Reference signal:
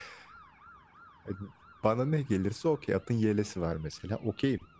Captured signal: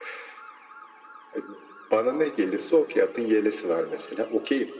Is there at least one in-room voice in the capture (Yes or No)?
No